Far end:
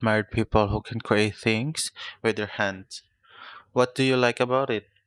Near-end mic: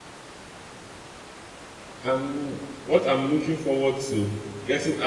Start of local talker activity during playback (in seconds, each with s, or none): 2.0 s